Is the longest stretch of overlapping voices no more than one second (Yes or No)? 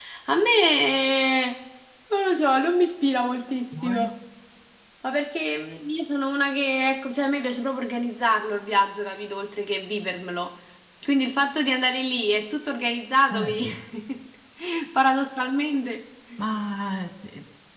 Yes